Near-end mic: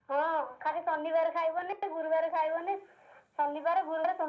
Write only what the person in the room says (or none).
none